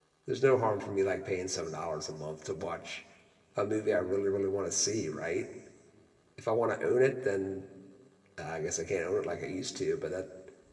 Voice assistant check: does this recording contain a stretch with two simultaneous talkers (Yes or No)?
No